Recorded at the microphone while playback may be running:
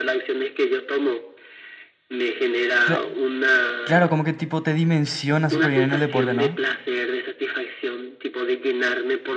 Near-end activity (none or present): present